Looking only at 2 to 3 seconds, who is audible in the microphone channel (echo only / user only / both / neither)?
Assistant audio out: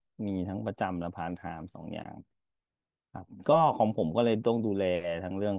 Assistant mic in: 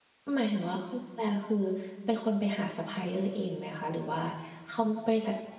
user only